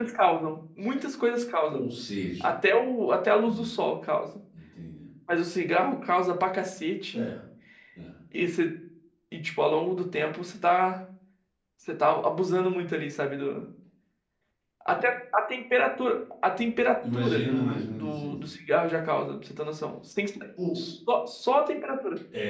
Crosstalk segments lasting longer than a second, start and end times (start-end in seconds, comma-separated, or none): 17.1-18.3